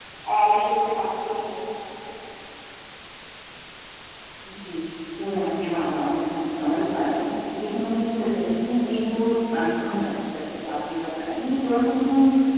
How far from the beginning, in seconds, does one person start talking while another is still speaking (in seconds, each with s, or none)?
none